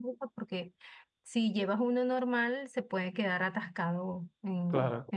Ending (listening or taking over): listening